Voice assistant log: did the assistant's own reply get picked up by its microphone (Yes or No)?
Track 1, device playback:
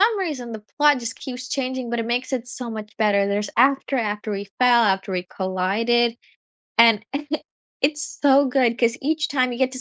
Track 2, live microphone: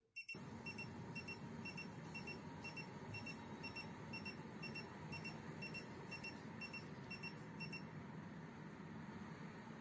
No